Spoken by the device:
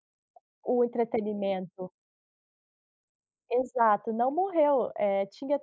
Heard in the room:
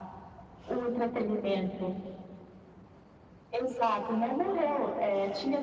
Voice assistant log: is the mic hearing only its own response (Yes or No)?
Yes